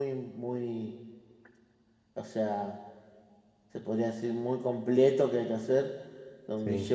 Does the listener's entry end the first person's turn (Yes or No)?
No